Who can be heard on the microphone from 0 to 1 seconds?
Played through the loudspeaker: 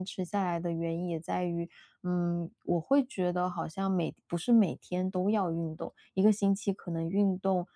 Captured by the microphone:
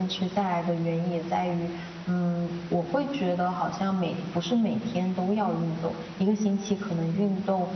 echo only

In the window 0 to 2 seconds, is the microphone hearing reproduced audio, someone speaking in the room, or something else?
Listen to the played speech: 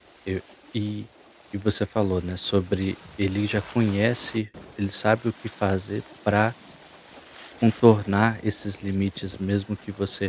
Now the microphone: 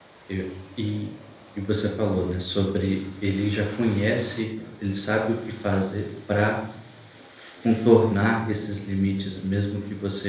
echo only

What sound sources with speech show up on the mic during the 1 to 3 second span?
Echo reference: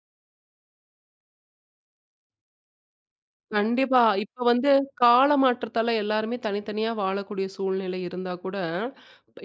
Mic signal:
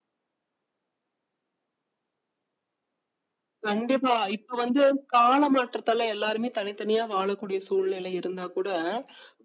neither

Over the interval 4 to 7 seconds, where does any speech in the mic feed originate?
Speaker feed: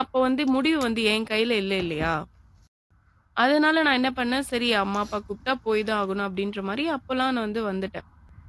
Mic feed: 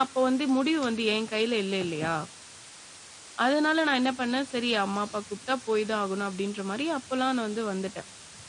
echo only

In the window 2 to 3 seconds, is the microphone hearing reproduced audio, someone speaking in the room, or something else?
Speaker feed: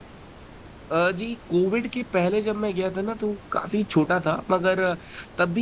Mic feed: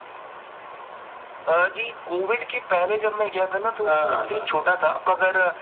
echo only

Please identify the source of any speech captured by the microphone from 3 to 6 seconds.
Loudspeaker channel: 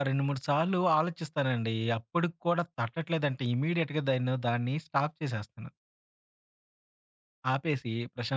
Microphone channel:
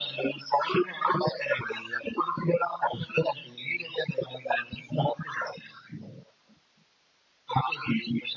echo only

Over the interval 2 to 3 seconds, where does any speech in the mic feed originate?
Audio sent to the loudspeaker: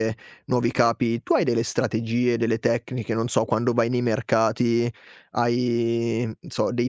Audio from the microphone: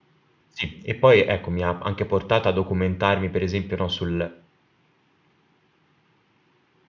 user only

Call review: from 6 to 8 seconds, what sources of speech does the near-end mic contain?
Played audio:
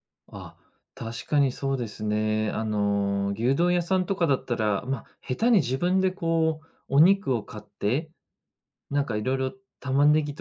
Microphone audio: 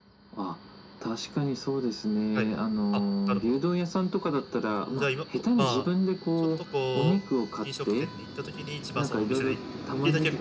both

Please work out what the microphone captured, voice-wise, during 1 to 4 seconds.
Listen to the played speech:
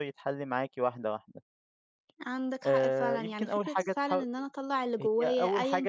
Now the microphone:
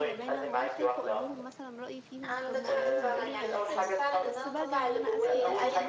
both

